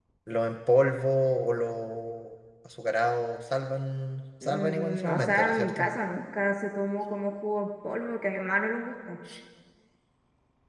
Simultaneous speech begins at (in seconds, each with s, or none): 4.4 s